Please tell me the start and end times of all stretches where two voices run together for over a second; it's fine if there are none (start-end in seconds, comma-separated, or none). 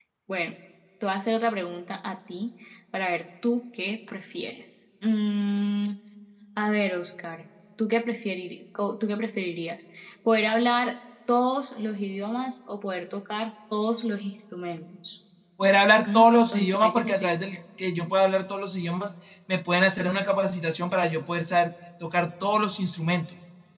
16.1-17.3